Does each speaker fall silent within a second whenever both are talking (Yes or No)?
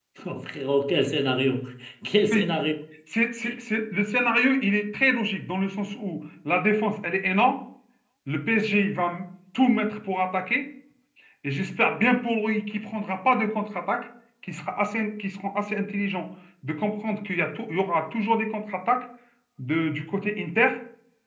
Yes